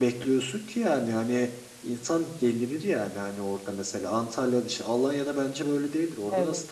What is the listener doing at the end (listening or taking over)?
taking over